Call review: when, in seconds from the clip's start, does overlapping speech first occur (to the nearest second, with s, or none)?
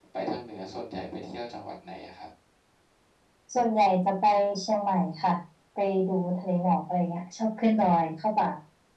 none